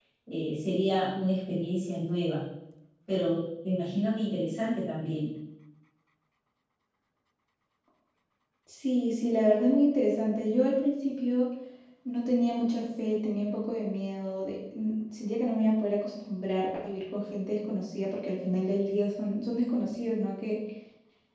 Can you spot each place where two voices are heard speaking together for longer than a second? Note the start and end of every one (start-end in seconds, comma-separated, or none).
none